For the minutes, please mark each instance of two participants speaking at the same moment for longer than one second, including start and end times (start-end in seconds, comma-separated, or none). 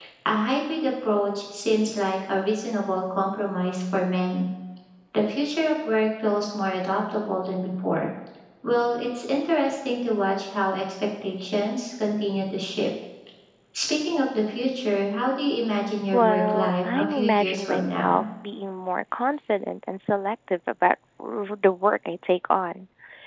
16.1-18.2